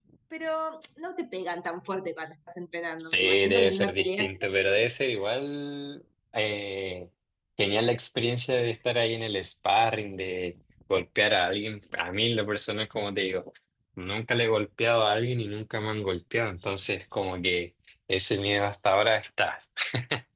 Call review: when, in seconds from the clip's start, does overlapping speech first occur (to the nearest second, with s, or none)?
3 s